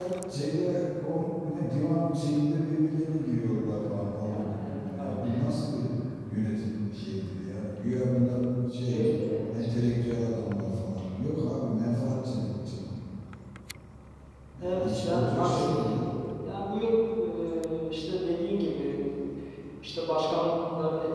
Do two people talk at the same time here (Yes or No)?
Yes